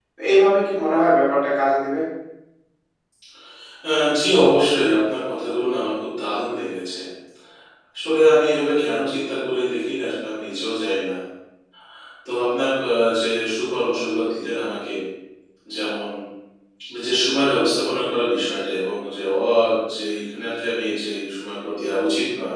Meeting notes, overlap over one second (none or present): none